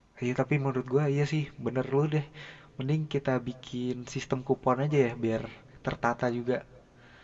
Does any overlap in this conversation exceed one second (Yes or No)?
No